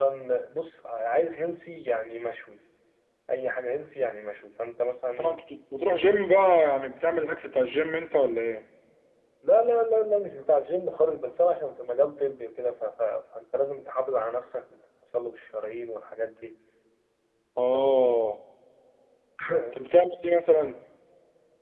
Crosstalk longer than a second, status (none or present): none